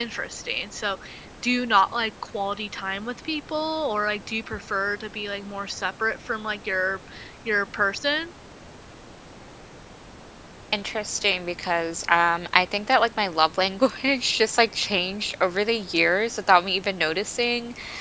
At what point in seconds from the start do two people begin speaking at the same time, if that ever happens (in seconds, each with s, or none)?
none